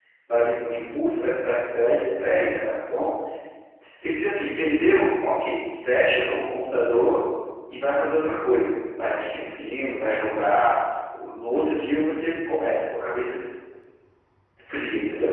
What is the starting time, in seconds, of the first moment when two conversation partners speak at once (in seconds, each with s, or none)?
none